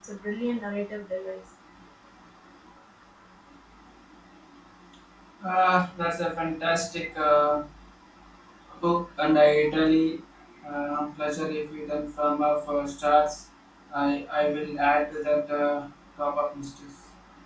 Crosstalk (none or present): none